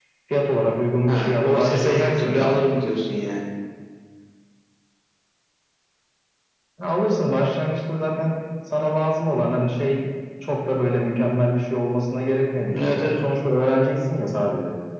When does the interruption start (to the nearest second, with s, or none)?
1 s